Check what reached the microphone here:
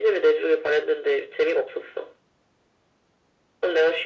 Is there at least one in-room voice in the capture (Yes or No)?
No